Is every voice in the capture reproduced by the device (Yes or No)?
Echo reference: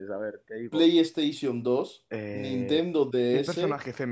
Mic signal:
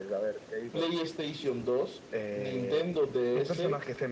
Yes